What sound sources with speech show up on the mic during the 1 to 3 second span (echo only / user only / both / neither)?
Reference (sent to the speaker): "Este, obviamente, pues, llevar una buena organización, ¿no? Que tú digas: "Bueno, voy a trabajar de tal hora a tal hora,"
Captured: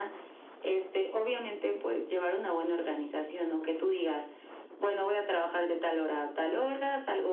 echo only